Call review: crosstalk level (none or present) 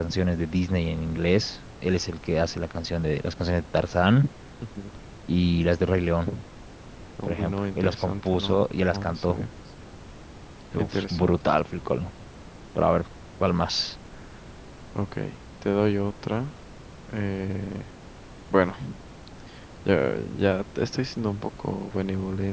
present